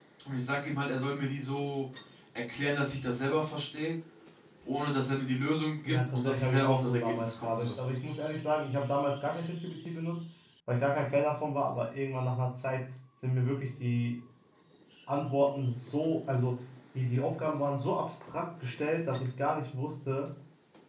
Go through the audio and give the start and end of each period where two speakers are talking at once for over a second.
5.8-7.8

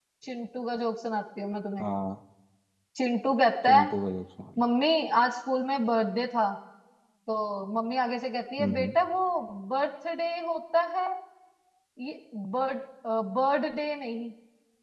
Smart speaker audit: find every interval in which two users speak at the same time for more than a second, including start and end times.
none

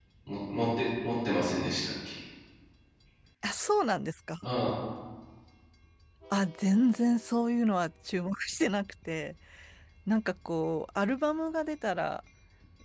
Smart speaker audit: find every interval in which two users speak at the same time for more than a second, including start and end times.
none

